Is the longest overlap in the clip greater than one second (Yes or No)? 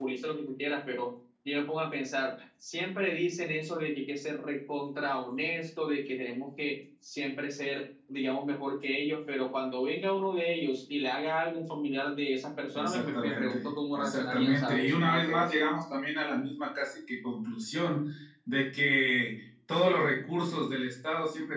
Yes